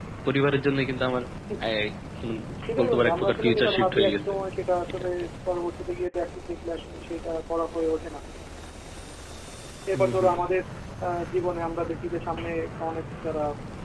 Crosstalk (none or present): present